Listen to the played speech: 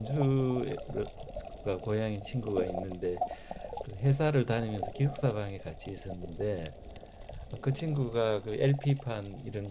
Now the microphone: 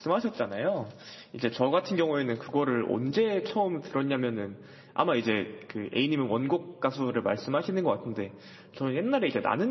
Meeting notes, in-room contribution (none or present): present